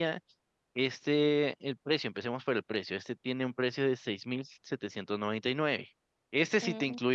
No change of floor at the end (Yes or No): Yes